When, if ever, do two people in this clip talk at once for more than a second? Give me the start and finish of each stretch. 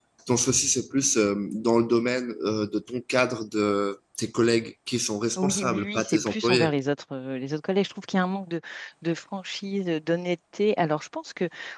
5.4-6.7

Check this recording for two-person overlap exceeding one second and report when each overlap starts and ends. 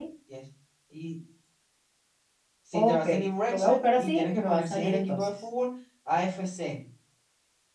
3.5-5.3

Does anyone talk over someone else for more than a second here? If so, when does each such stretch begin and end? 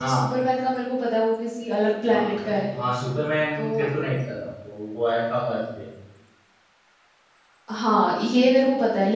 none

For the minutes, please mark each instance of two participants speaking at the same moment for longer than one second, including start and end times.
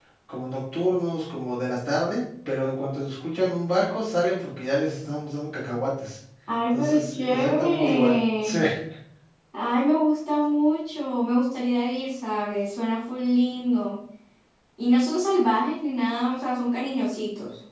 6.7-8.6

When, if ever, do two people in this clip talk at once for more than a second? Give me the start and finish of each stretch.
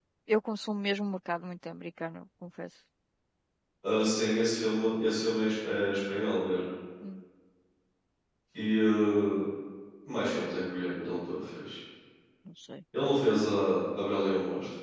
none

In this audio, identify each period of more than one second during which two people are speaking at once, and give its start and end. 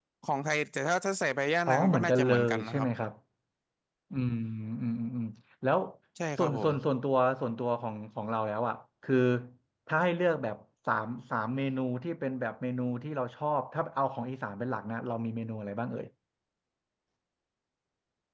1.7-2.9

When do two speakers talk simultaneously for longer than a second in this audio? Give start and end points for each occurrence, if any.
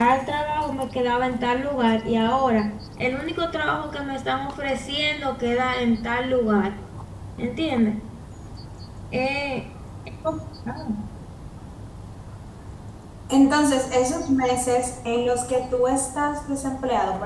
none

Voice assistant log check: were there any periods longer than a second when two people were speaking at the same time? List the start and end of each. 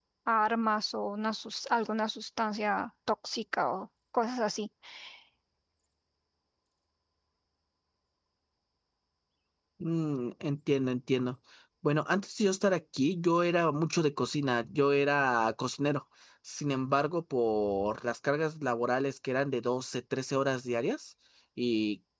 none

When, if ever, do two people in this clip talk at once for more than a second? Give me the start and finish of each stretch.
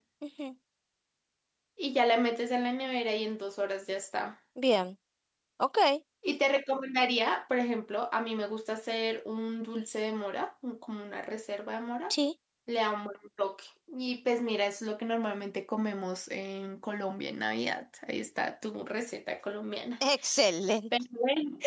none

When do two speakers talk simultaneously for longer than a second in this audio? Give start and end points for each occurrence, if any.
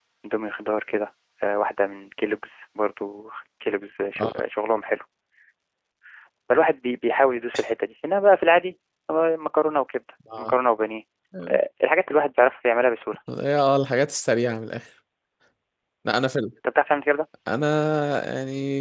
none

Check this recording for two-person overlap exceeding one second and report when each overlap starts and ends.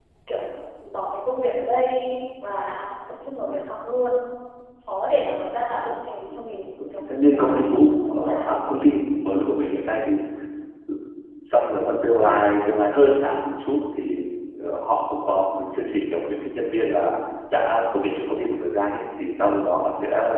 6.8-8.6

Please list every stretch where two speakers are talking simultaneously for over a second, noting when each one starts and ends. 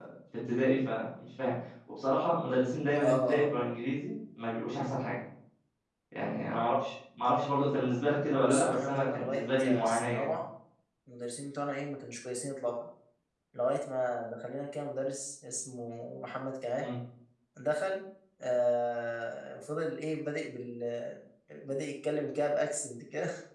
8.1-10.4

